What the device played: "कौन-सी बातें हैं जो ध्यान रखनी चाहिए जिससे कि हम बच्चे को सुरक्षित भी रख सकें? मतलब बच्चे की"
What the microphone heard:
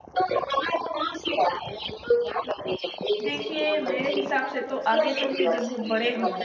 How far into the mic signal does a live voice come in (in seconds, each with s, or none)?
3.2 s